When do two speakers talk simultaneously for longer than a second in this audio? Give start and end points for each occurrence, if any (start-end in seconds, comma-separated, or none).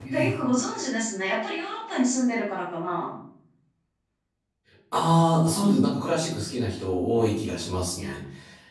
none